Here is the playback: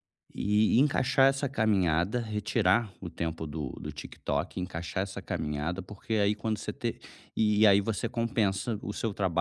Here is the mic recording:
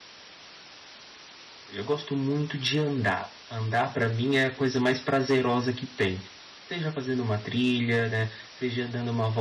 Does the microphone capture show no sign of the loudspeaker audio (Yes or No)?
Yes